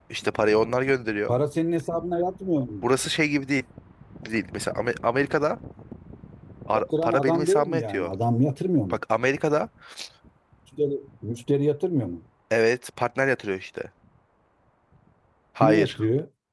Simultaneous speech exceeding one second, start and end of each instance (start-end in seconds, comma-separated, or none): 6.7-8.1